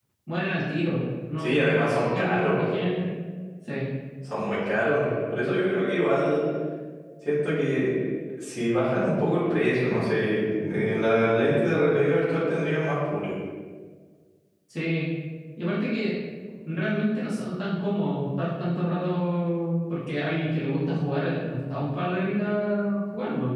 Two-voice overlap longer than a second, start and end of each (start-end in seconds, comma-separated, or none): 1.4-2.6